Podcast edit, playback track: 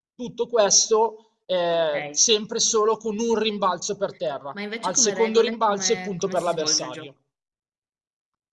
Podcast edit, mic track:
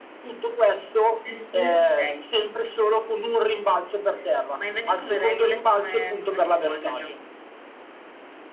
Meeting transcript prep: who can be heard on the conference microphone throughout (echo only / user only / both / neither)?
both